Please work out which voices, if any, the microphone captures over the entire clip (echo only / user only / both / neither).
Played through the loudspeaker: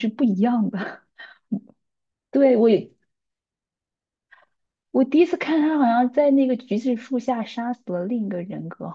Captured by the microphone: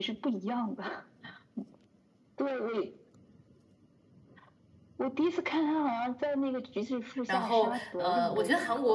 both